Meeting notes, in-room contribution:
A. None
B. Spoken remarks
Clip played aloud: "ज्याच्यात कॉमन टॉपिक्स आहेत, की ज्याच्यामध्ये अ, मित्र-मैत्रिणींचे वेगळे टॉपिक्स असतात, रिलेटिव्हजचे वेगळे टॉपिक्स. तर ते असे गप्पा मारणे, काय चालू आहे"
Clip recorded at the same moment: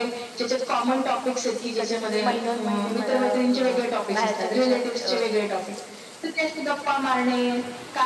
B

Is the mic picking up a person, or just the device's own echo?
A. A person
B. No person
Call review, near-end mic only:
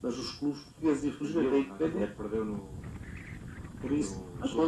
B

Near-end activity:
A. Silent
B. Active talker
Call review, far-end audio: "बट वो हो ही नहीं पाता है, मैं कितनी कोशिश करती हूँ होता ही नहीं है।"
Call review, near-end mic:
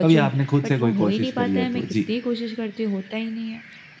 B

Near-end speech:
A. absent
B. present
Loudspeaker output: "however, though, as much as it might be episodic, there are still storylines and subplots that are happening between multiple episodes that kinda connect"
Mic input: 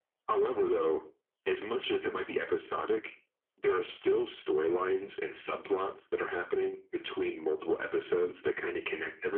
A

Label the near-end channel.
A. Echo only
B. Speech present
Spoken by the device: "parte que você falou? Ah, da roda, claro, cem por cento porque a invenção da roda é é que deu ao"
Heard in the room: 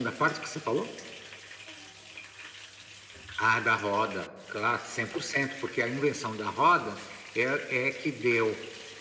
A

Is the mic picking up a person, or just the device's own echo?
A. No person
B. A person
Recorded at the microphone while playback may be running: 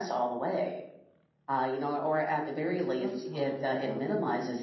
B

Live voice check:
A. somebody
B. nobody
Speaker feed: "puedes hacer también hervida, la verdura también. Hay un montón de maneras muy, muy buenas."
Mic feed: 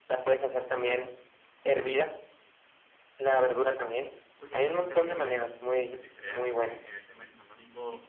A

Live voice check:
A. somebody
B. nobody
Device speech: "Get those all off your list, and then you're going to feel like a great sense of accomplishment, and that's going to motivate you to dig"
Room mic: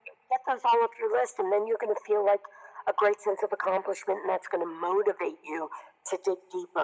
B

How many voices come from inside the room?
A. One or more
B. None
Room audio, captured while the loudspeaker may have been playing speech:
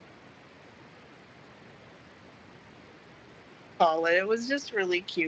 A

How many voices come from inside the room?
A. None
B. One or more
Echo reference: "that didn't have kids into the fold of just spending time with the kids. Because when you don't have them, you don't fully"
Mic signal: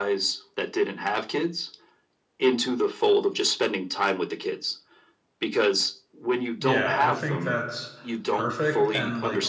B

